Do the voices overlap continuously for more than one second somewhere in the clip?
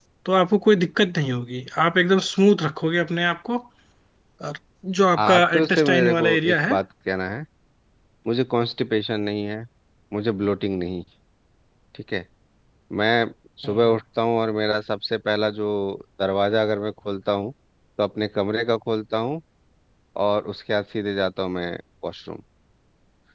Yes, from 5.2 s

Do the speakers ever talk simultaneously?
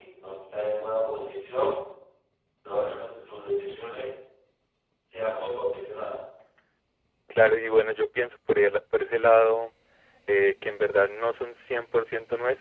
No

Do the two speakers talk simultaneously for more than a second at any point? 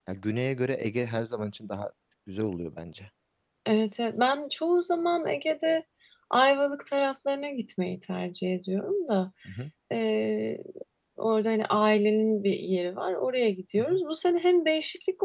No

